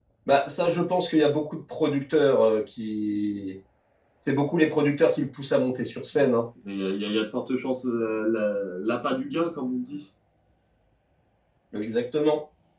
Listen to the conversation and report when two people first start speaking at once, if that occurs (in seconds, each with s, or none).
none